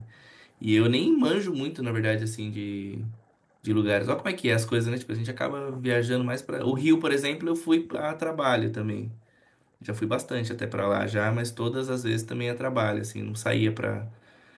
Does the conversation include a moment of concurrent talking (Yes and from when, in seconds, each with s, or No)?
No